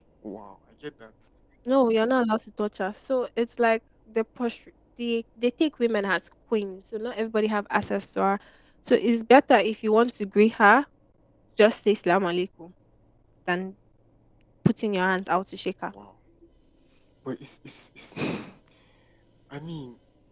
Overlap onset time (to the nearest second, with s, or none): none